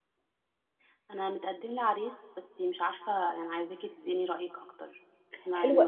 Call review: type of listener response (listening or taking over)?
taking over